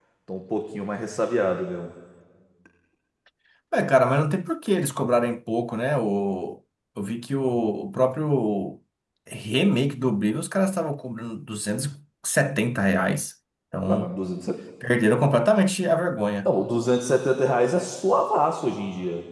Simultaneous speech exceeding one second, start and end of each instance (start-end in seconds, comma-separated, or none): none